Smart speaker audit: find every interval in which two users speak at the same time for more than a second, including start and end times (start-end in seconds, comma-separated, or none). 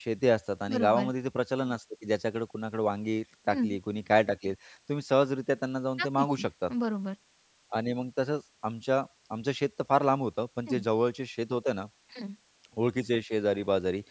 none